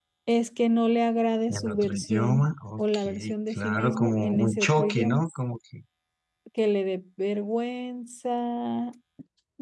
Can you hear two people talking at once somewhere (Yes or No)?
Yes